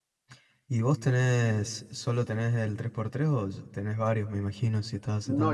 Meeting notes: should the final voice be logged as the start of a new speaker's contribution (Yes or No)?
Yes